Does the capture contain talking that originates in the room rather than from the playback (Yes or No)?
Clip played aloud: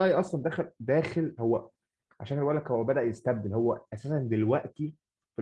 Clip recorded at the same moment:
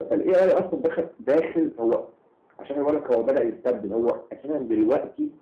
No